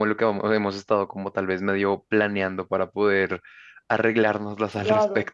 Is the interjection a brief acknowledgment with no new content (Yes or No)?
No